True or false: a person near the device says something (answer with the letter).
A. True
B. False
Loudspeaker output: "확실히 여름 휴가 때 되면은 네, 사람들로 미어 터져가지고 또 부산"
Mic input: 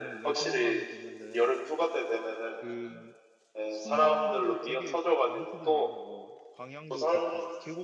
A